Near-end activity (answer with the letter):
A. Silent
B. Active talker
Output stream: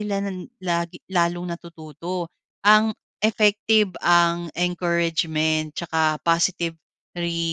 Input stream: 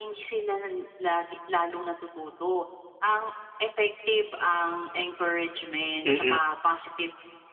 B